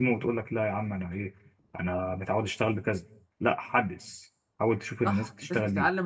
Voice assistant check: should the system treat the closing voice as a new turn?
Yes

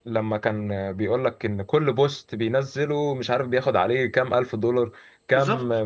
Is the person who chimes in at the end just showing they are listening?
Yes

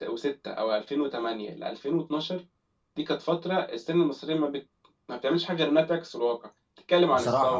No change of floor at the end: Yes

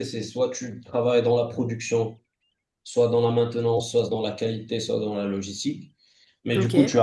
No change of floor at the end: Yes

